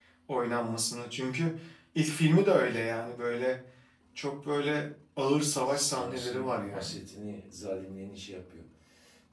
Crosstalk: present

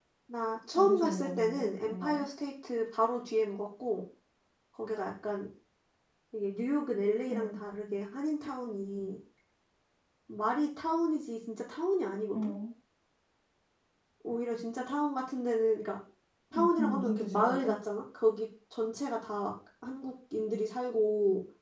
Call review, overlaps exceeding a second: present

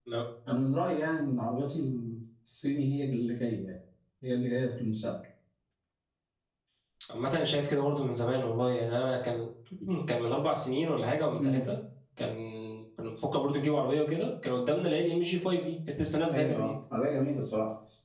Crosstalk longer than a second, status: none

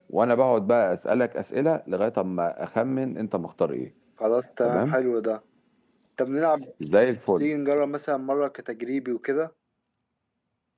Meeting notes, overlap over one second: none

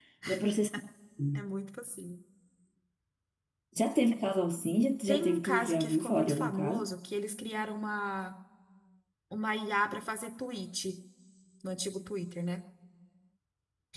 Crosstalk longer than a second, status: present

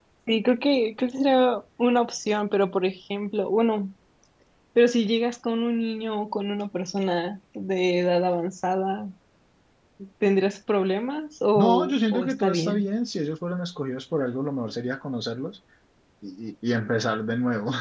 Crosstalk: present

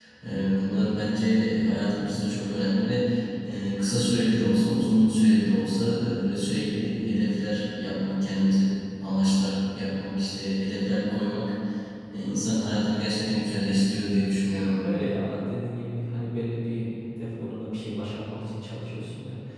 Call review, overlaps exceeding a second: none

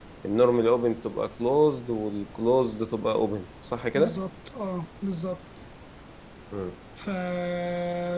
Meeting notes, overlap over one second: none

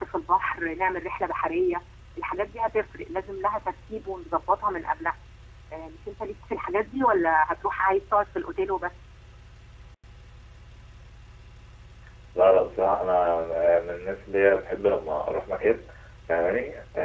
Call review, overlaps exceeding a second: none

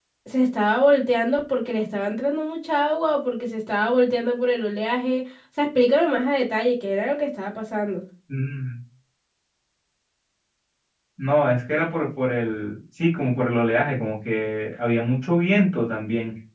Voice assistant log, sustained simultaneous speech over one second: none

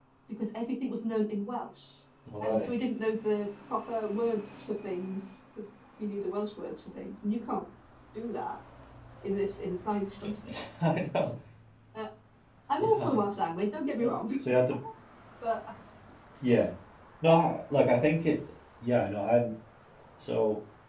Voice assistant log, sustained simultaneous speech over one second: none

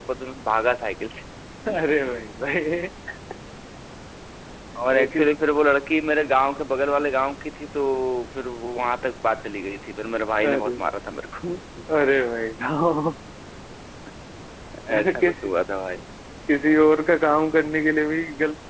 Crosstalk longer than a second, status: none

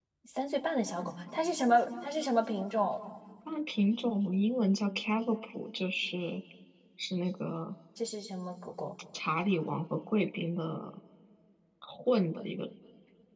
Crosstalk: none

